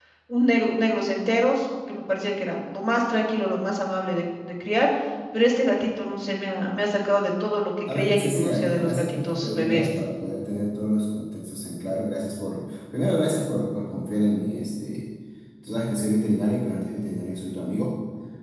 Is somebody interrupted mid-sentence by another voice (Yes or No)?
Yes